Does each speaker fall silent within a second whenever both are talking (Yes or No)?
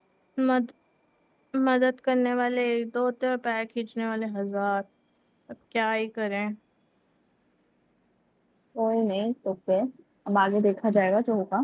Yes